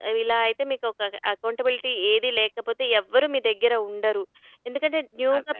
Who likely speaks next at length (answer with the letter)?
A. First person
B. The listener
A